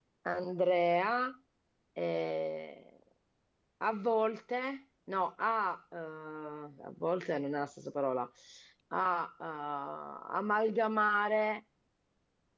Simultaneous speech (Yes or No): No